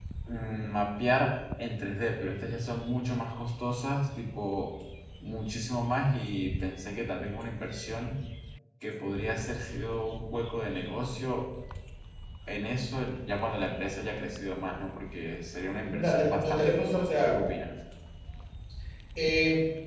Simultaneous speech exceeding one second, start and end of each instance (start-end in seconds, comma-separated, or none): 15.9-17.4